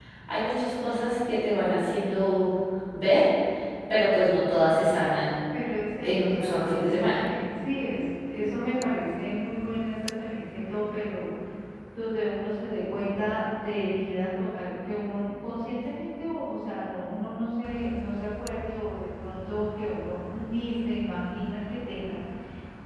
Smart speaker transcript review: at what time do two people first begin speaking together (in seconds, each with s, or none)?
6.0 s